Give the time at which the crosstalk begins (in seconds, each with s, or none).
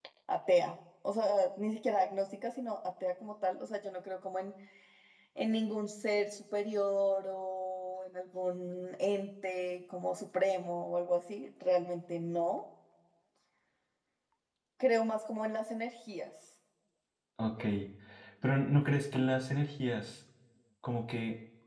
none